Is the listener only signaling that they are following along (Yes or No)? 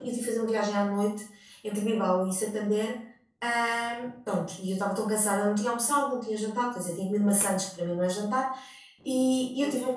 Yes